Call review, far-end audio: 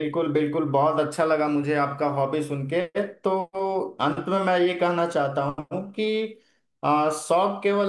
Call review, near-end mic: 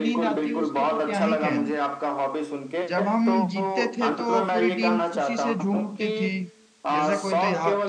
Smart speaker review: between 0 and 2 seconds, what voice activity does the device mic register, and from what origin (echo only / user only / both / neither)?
both